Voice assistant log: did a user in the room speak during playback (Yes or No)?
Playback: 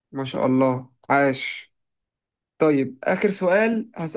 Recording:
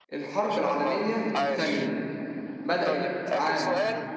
Yes